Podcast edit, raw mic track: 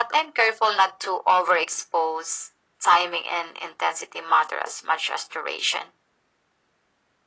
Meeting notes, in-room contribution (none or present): none